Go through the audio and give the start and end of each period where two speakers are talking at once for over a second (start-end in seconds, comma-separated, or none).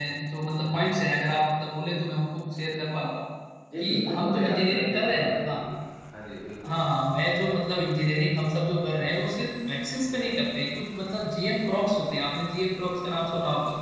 3.8-5.6